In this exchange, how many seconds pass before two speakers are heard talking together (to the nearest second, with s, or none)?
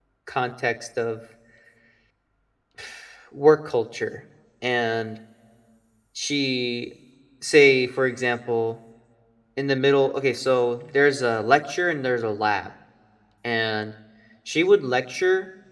none